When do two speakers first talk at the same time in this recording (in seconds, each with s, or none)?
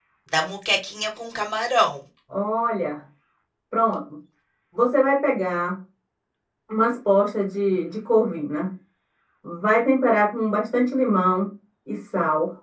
none